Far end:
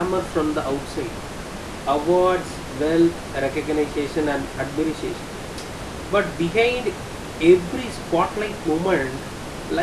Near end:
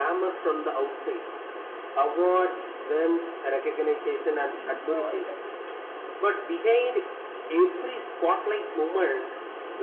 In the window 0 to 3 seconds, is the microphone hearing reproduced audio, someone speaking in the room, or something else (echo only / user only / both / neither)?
echo only